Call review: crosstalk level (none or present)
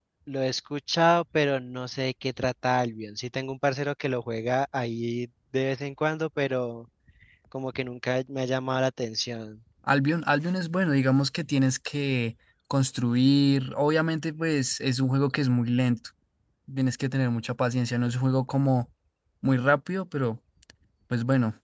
none